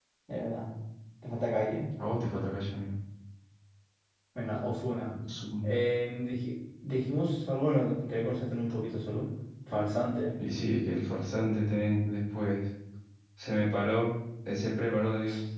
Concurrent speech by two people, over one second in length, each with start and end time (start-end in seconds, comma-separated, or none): none